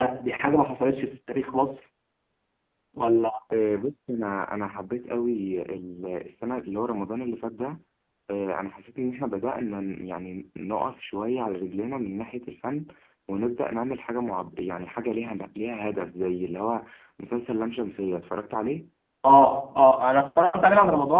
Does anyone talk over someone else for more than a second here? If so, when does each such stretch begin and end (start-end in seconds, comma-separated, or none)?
none